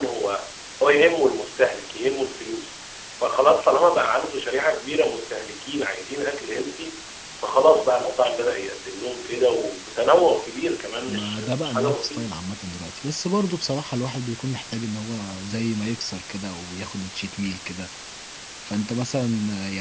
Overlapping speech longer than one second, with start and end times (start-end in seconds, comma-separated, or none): 11.1-12.3